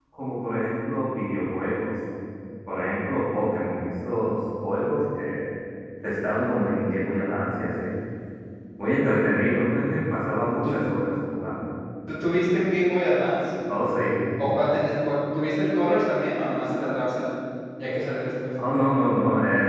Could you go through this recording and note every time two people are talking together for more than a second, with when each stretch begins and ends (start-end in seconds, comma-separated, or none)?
none